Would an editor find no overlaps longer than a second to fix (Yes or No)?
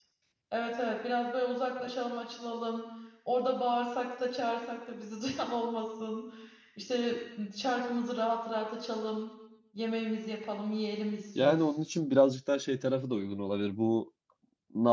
Yes